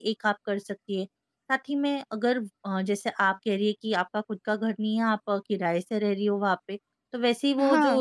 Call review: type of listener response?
listening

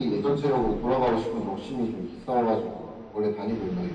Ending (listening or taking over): taking over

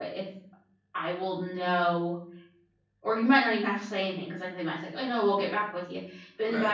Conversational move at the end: listening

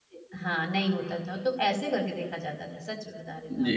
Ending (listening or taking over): taking over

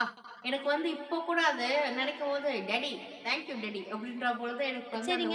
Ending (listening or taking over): taking over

